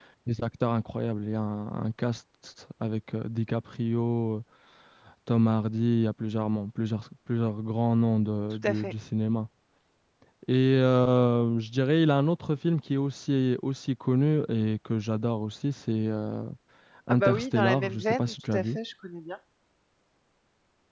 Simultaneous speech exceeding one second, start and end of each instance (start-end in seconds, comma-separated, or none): 17.1-18.8